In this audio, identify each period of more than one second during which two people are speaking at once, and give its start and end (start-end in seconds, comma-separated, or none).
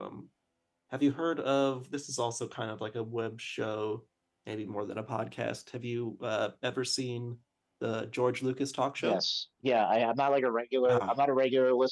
none